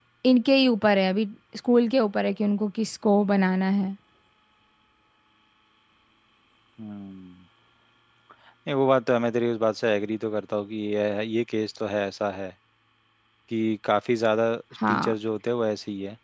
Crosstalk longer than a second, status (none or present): none